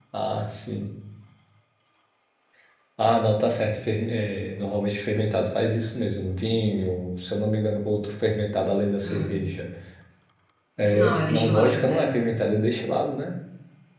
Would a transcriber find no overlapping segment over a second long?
No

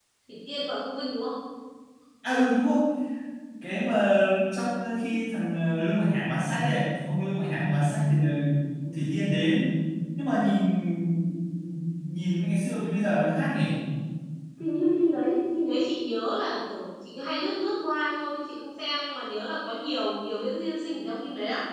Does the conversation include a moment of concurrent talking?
No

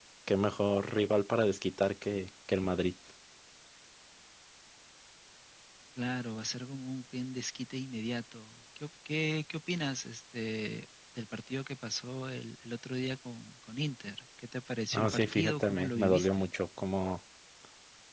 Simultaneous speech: Yes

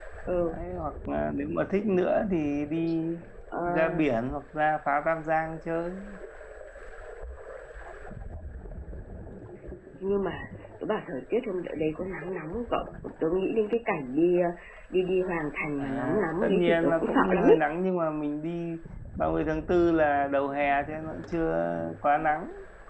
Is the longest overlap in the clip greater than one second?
Yes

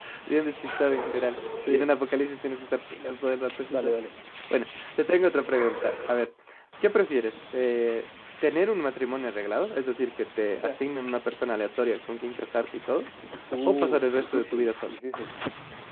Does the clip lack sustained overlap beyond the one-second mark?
No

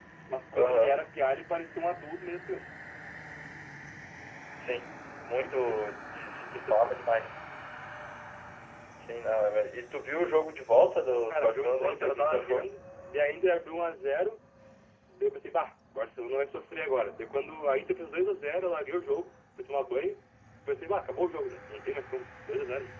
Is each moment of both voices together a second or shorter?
No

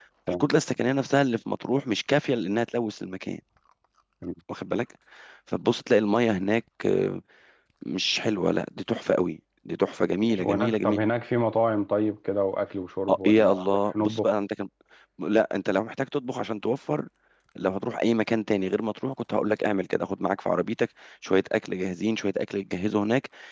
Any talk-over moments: Yes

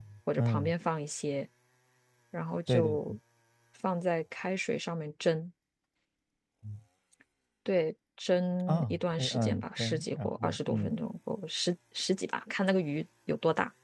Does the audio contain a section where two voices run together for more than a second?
Yes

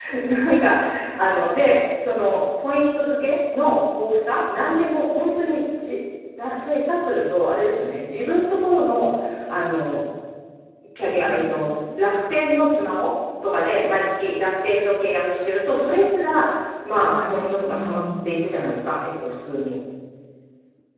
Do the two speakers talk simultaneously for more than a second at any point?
Yes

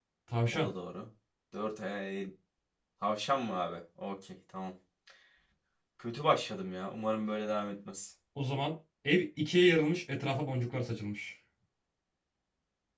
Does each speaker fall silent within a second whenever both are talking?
Yes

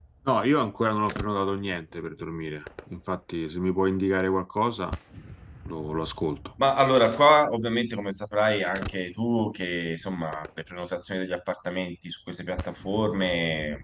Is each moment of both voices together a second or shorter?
Yes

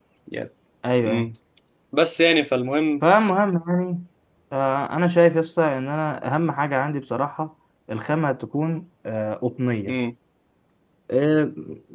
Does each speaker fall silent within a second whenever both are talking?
Yes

